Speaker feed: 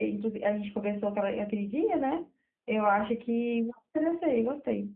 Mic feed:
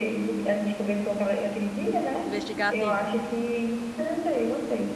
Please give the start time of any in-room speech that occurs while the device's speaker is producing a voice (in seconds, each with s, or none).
2.2 s